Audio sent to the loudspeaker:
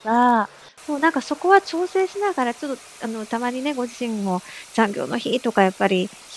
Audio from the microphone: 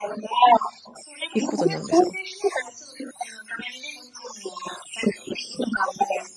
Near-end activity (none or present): present